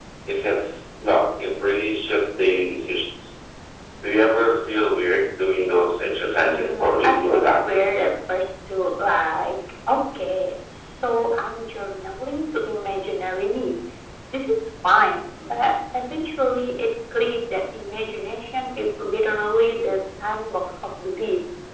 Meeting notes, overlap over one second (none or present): present